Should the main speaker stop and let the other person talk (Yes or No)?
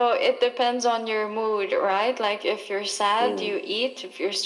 No